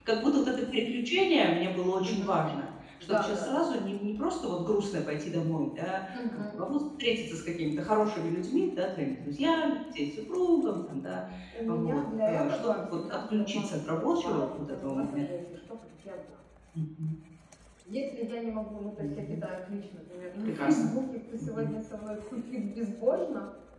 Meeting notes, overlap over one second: present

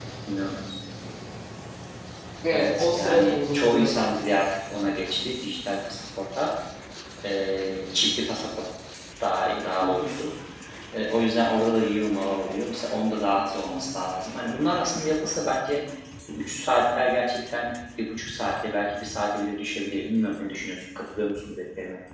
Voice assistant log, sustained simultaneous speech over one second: present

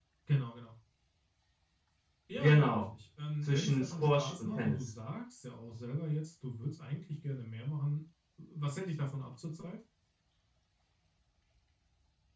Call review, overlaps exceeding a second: present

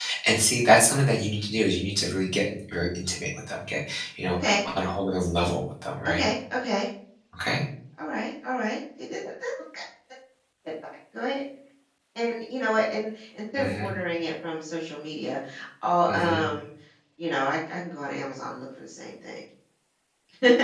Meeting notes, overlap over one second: none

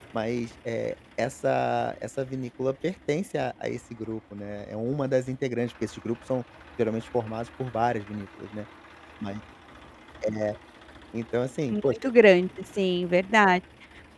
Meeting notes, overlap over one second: none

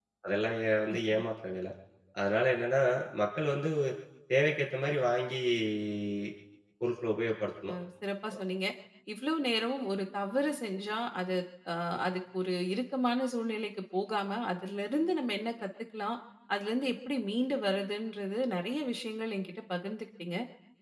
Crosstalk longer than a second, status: none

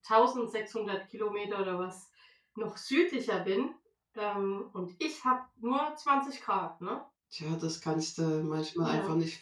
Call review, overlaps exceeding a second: none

